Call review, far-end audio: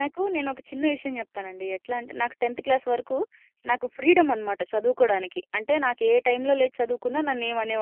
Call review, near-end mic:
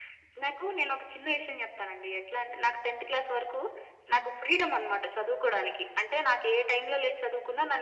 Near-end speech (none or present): none